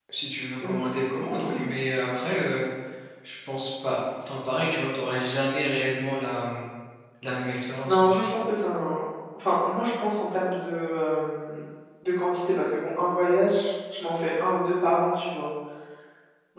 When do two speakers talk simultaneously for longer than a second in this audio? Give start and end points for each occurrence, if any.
none

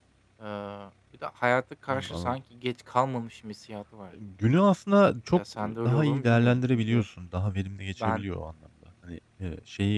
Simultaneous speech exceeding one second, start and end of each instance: 5.8-7.0

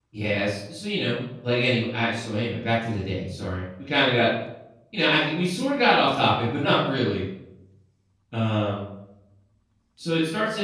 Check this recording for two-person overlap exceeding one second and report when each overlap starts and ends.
none

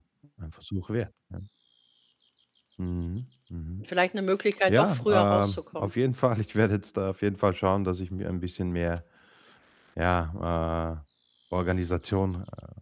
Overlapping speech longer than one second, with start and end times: 4.7-5.9

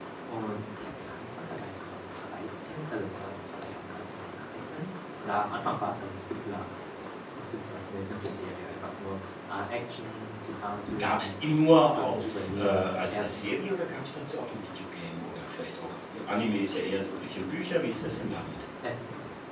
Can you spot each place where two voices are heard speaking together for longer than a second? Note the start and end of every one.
11.9-13.4

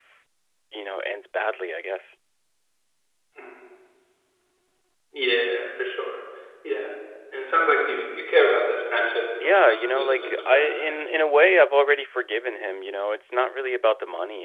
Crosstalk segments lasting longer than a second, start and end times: 9.4-10.9

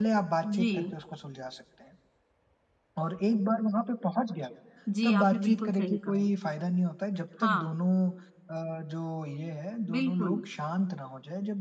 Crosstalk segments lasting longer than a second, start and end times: 5.0-6.3

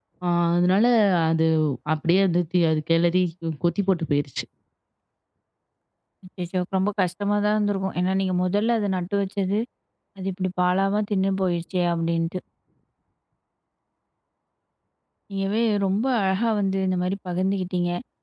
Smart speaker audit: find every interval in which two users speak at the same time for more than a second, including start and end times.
none

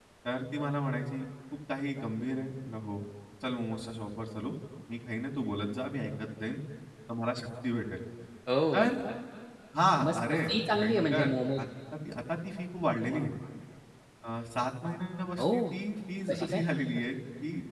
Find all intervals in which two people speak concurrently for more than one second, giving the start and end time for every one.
10.1-11.6

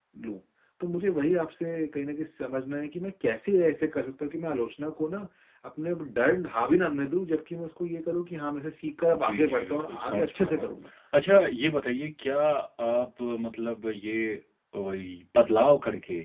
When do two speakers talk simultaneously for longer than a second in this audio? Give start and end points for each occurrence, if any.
9.1-10.7

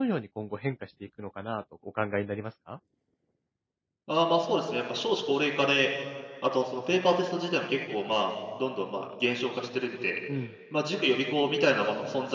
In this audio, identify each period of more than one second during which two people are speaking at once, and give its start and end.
none

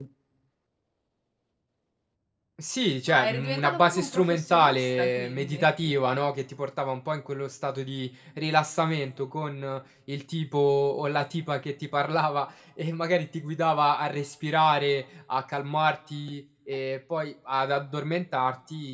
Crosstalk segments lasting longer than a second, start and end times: 3.1-5.7

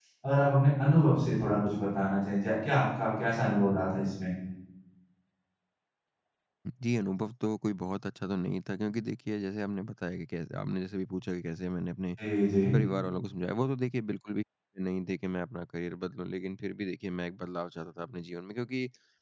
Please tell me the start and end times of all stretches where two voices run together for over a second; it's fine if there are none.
none

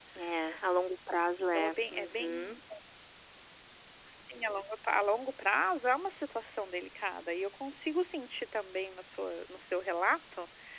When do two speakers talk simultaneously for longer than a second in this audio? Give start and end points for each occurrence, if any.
1.4-2.6

